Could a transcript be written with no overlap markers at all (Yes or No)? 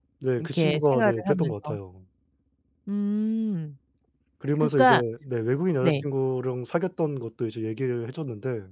No